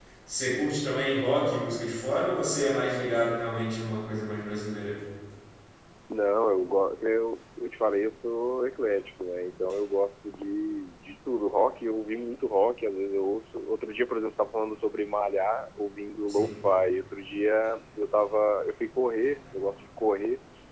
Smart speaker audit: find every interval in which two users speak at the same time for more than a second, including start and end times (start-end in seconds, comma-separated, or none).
none